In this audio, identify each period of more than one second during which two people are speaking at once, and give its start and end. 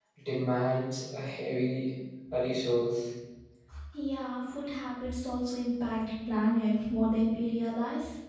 none

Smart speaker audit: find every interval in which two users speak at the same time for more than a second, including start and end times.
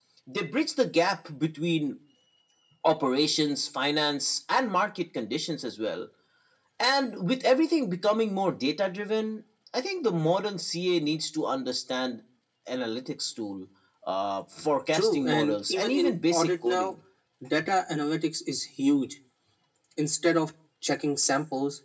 14.9-16.9

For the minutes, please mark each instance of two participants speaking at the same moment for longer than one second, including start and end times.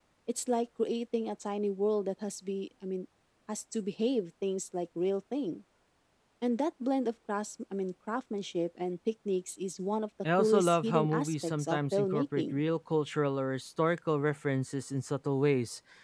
10.4-12.6

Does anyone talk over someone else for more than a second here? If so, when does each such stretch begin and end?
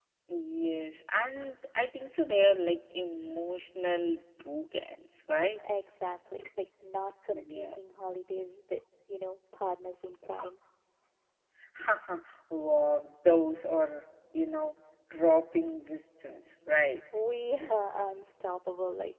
none

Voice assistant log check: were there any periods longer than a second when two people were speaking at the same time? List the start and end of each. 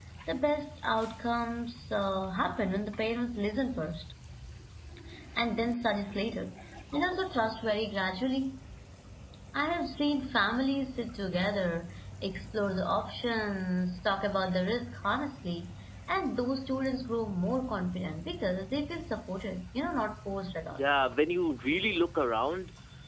none

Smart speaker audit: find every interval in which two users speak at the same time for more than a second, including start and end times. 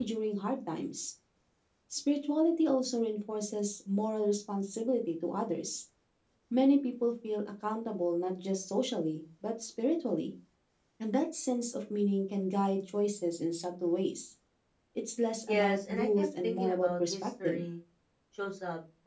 15.5-17.6

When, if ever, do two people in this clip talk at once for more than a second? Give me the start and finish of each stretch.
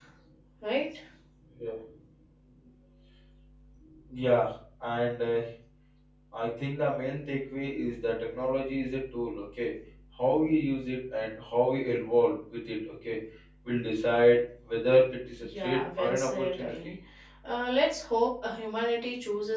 15.4-16.7

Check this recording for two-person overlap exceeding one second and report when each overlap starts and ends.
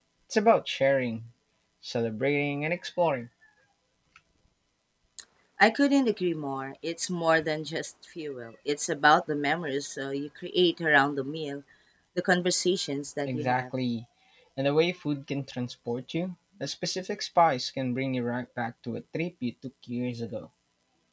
none

